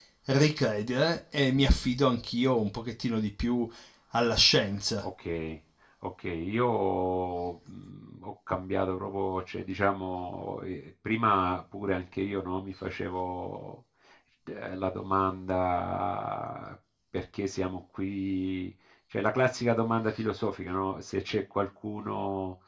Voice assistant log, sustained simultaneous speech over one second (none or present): none